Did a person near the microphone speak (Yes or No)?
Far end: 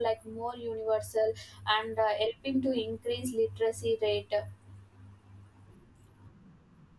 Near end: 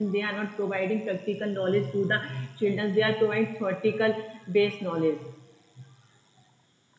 Yes